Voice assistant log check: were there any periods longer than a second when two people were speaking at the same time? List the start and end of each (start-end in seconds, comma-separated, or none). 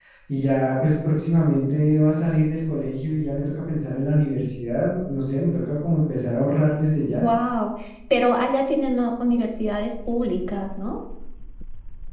none